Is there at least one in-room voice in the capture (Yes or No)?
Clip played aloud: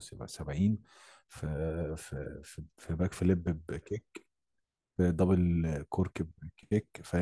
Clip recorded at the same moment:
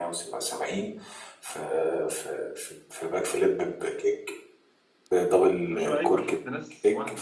Yes